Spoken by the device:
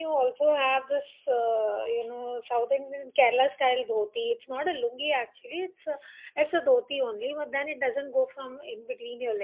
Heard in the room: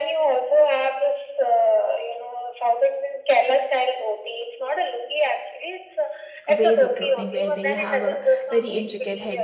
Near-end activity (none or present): present